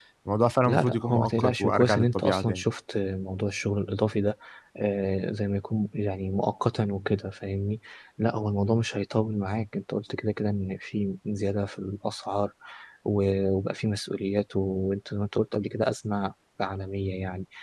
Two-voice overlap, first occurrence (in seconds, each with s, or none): 0.7 s